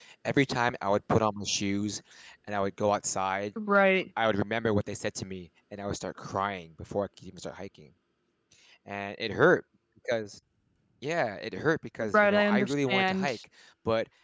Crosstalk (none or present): present